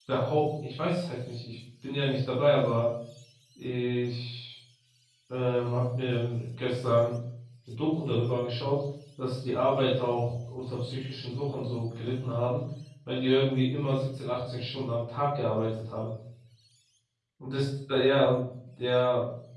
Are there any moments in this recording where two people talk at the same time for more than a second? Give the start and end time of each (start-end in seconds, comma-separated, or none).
none